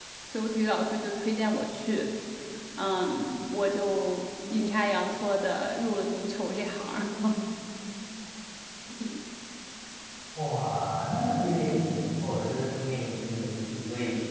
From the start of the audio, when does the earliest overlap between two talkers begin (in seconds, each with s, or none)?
none